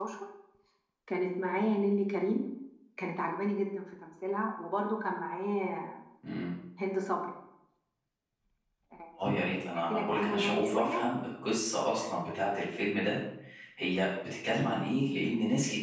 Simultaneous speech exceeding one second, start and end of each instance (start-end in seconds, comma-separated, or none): 9.7-11.0